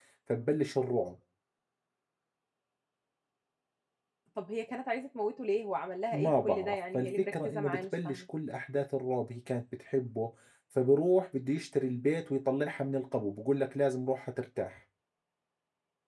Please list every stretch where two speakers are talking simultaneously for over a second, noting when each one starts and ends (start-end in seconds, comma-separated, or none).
6.1-8.2